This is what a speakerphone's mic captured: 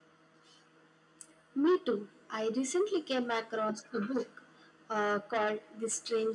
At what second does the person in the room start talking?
none

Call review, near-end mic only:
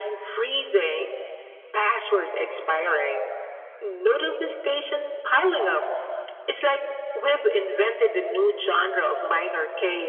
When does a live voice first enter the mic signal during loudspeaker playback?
none

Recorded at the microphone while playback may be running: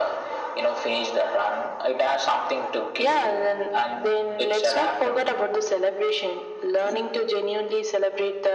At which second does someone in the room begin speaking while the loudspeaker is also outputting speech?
none

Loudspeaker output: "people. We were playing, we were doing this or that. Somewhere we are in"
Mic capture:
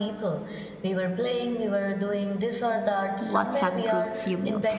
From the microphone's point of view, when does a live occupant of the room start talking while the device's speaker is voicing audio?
3 s

